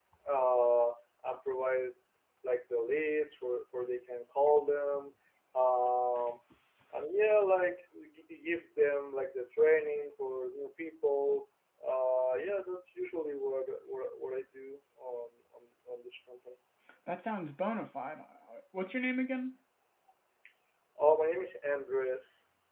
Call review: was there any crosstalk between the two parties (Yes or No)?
No